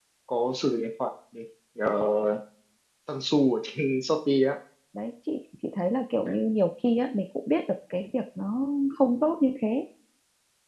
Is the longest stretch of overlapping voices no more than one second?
Yes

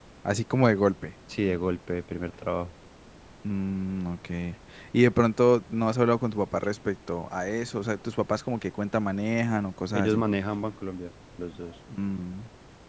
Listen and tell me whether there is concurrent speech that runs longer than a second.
No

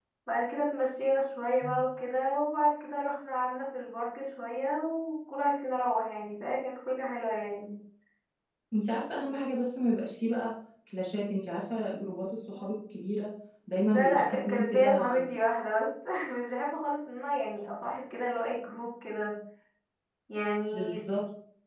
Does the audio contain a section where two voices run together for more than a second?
Yes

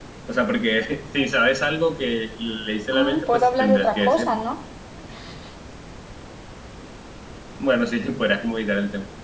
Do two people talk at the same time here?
Yes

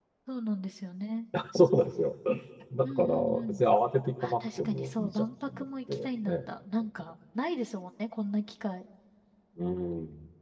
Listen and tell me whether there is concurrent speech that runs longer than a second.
Yes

